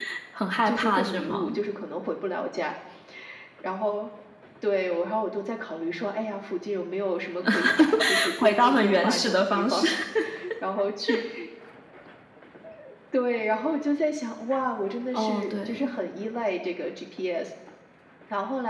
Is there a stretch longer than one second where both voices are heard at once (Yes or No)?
Yes